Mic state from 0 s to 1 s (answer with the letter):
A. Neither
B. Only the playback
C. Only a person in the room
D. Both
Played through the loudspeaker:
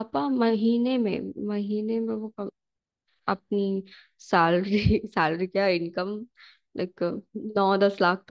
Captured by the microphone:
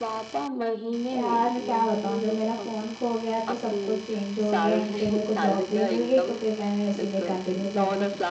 B